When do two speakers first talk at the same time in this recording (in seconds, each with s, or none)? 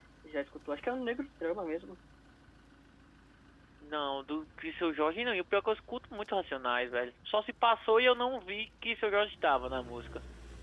none